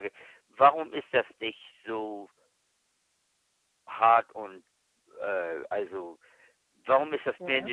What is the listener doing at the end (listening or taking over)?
listening